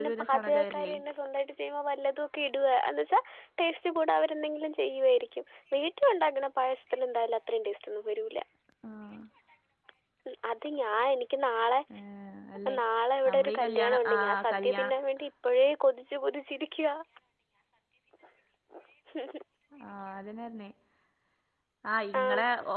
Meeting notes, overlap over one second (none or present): present